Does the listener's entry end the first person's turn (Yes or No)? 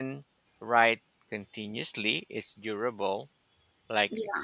No